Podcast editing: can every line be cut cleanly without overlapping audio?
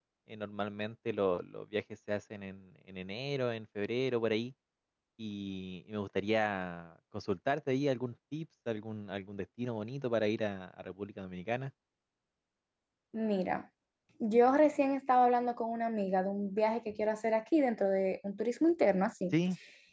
Yes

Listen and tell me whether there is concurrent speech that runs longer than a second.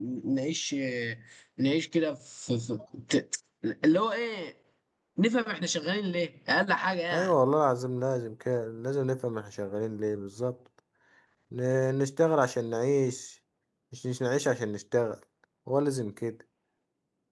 No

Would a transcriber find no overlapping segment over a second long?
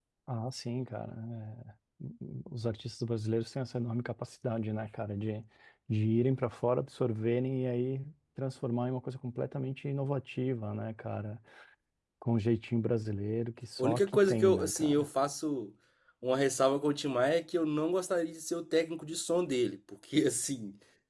No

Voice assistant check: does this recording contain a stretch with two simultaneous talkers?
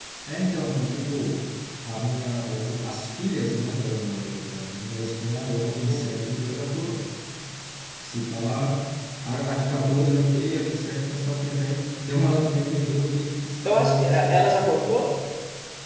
Yes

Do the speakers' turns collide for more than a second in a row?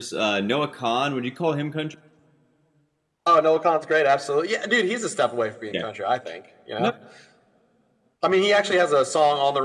No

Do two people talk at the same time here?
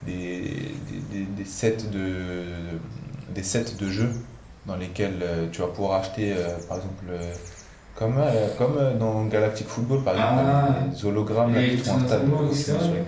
Yes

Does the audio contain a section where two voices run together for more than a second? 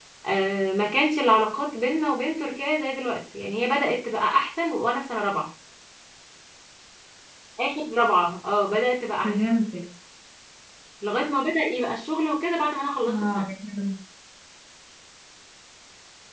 No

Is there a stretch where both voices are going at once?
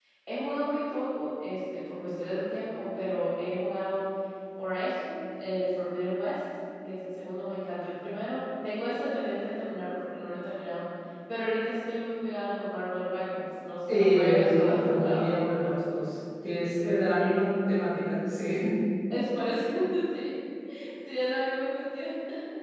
Yes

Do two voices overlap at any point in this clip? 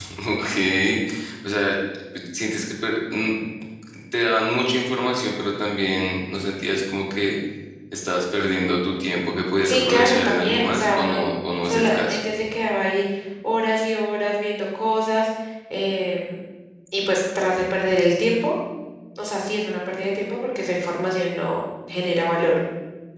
Yes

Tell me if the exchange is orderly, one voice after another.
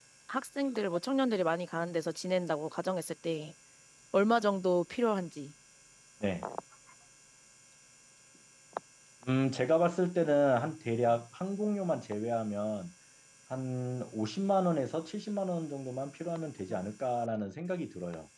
Yes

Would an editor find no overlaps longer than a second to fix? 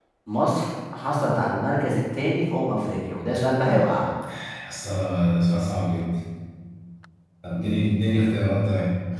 Yes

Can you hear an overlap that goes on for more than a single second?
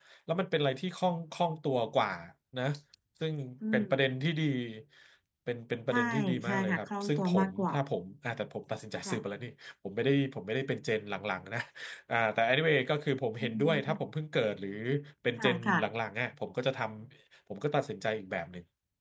Yes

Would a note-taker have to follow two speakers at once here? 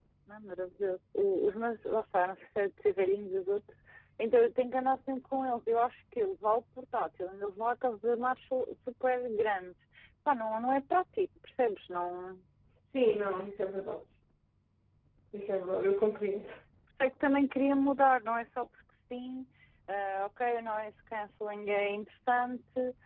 No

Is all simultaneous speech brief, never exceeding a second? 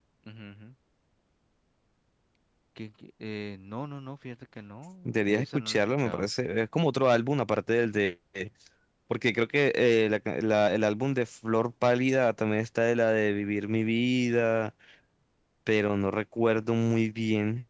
No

